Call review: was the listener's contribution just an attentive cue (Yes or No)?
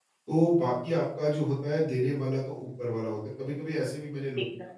Yes